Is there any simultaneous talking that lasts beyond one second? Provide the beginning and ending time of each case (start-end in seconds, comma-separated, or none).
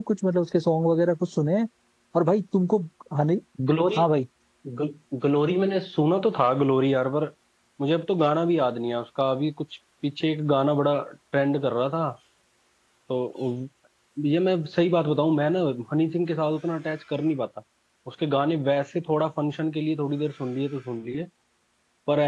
none